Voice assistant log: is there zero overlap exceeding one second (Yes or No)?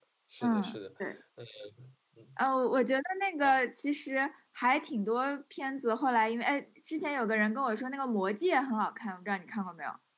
Yes